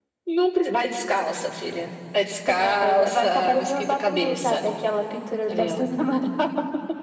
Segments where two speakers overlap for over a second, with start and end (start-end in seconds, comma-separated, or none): 2.6-4.6